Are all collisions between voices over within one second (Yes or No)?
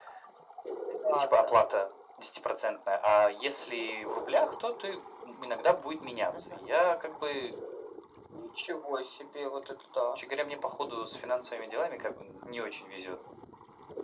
Yes